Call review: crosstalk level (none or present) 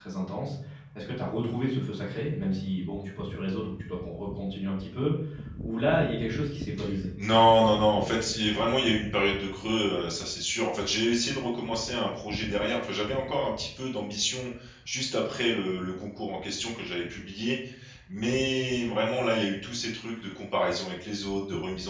none